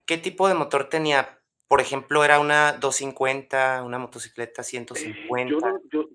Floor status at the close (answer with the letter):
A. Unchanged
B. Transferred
B